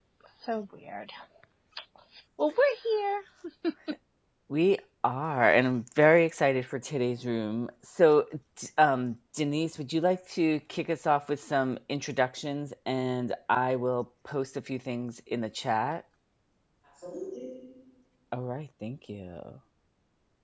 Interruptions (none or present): none